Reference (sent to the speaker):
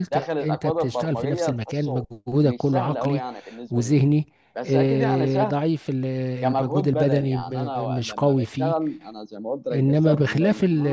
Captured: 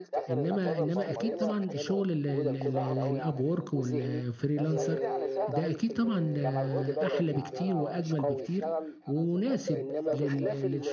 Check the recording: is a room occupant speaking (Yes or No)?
Yes